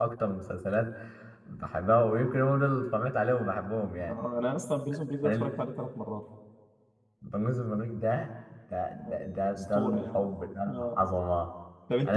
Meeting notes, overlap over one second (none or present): present